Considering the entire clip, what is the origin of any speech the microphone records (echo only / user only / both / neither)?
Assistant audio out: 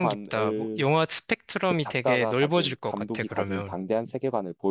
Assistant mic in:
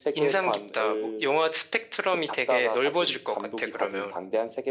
echo only